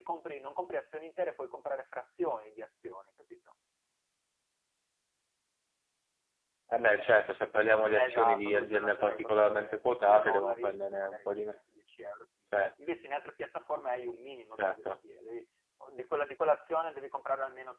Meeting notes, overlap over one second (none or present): present